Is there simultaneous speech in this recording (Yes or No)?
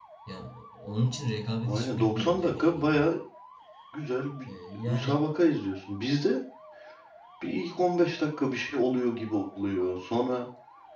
Yes